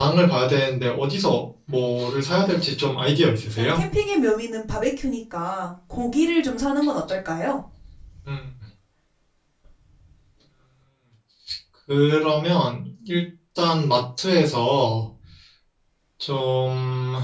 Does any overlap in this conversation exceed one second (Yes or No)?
No